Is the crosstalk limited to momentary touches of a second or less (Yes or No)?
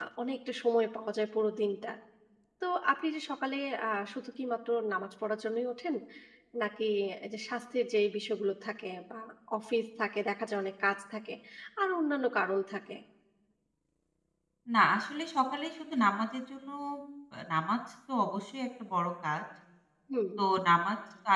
Yes